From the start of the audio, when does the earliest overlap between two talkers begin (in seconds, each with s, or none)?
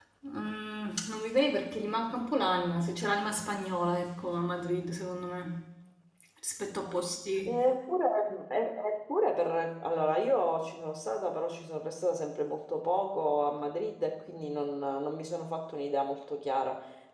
none